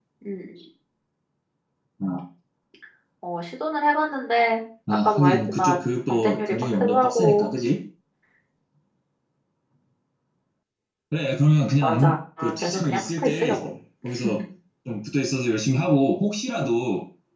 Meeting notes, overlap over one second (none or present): present